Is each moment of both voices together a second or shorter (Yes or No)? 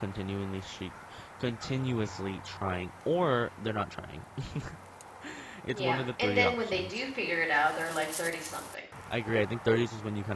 No